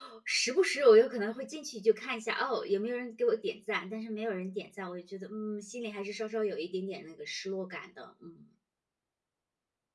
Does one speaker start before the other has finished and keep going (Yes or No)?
No